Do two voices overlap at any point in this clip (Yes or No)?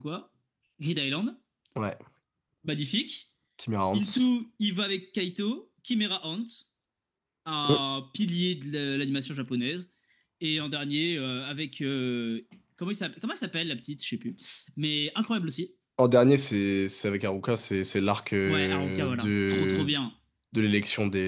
Yes